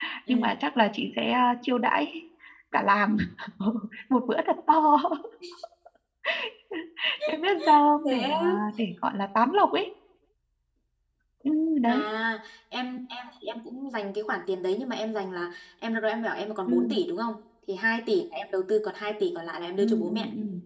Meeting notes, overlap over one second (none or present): none